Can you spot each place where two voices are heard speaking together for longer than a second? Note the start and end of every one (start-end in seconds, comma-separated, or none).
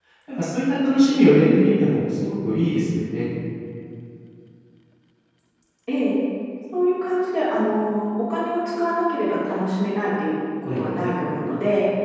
none